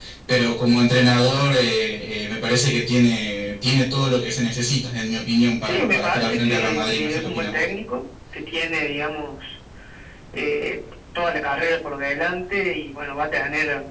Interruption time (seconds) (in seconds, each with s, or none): 5.6 s